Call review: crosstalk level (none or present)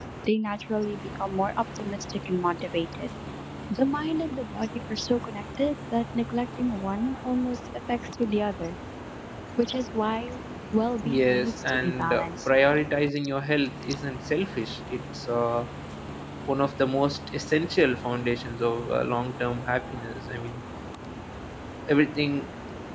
present